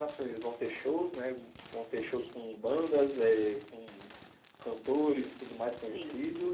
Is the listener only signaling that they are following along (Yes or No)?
Yes